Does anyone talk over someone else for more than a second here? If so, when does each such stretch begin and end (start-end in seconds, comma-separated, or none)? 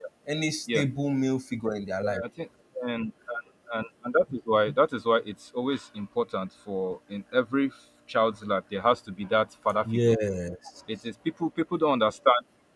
none